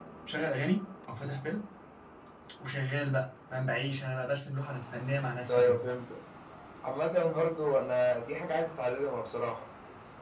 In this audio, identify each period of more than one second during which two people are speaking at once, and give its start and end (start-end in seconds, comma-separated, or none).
none